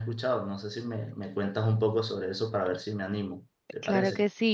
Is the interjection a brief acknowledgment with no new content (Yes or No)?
No